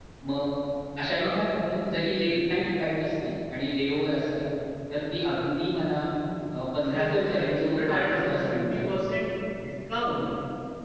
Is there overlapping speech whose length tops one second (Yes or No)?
Yes